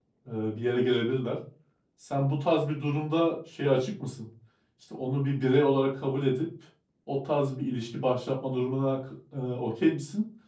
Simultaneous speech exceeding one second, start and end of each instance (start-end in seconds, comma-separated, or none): none